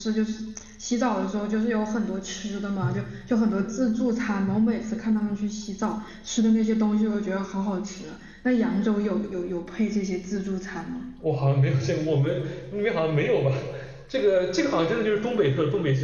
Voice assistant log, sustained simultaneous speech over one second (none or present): none